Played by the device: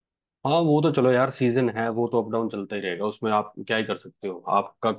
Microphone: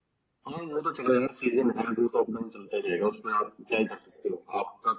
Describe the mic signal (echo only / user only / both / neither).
echo only